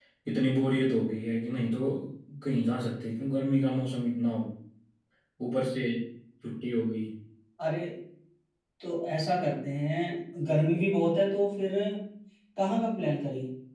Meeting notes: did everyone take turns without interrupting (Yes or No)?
Yes